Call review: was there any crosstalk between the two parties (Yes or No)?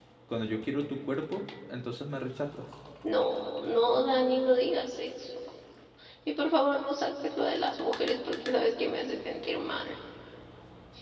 No